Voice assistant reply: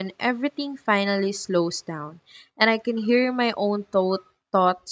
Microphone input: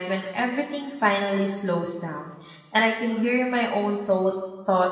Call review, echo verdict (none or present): present